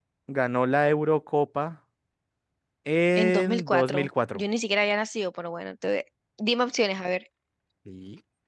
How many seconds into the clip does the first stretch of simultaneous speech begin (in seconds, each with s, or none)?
3.2 s